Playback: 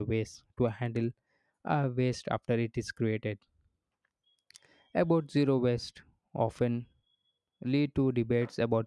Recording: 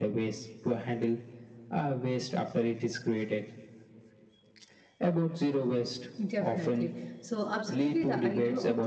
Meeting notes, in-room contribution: present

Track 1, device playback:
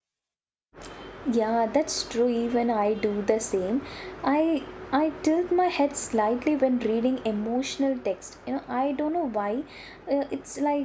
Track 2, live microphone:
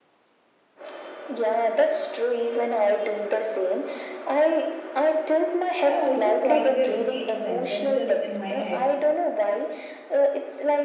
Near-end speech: present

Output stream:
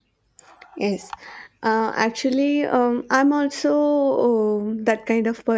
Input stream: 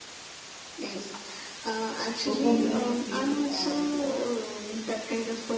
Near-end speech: present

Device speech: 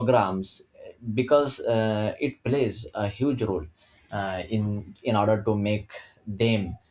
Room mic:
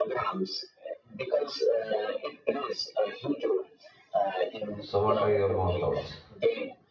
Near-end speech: present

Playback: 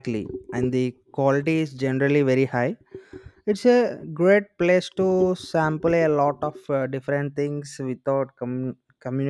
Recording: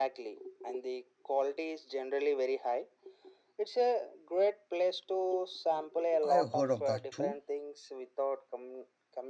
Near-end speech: present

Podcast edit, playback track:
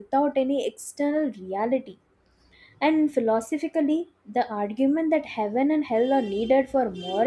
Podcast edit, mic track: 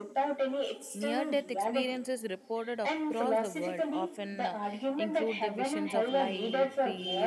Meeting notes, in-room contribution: present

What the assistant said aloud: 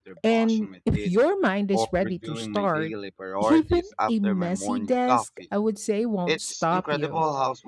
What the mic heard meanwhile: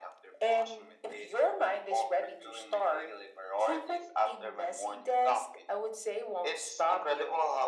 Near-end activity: none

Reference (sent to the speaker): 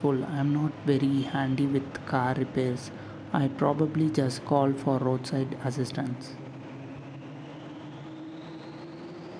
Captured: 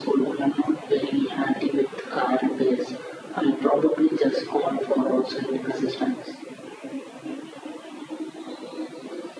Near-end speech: none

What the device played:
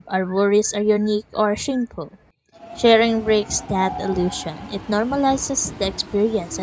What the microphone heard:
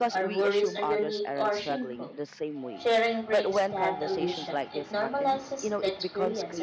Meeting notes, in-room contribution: present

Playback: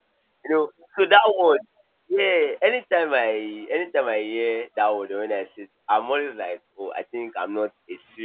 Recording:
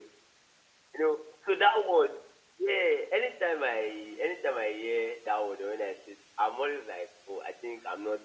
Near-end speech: none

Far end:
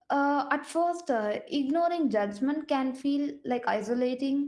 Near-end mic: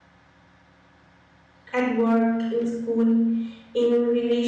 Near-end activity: present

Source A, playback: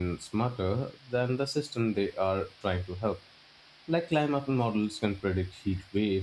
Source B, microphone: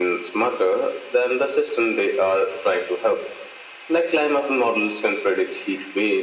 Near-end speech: none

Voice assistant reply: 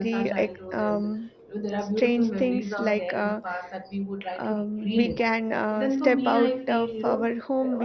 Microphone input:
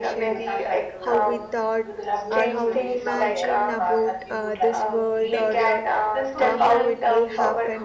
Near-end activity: present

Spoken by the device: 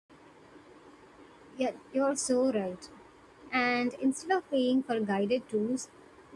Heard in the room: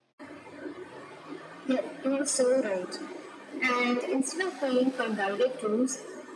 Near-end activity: none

